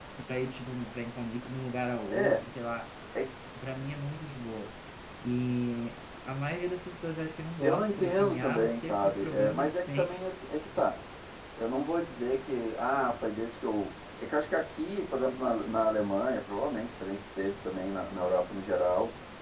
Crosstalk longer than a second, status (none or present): present